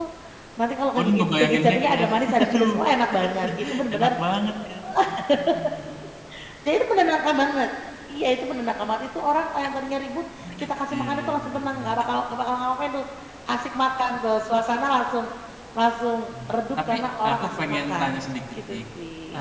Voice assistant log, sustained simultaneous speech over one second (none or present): present